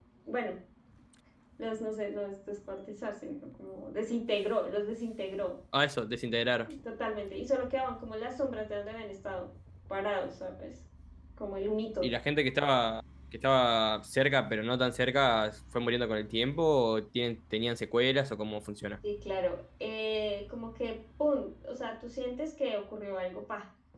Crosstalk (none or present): none